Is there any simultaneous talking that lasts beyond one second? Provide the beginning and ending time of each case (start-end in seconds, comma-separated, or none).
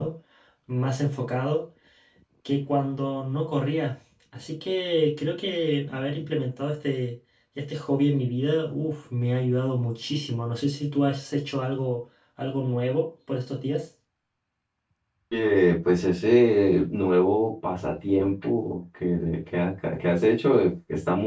none